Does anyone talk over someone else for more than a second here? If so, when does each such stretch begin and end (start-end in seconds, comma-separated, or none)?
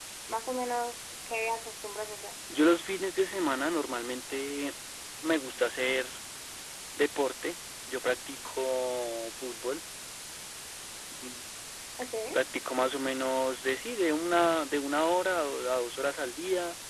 none